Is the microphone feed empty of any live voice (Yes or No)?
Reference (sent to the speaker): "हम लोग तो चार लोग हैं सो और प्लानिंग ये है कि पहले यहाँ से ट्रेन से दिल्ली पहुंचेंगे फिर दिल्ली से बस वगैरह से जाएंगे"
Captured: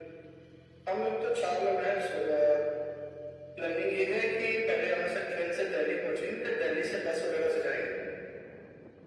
Yes